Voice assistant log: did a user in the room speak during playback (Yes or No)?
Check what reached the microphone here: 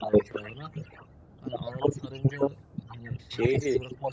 Yes